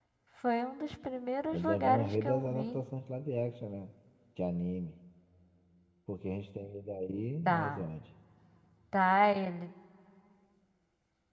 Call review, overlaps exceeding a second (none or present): present